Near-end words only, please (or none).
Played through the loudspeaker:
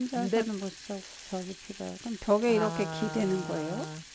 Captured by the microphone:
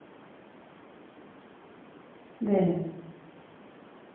네,